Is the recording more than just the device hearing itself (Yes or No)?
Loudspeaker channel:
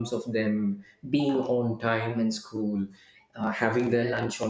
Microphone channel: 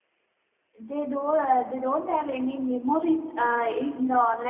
Yes